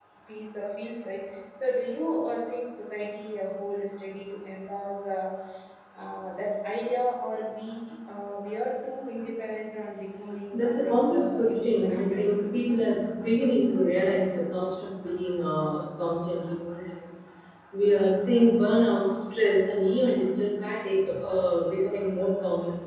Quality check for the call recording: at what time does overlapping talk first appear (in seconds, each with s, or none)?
10.5 s